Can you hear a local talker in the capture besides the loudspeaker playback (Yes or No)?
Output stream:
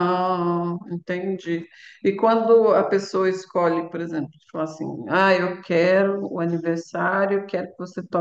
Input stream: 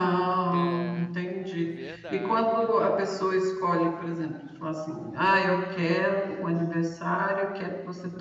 Yes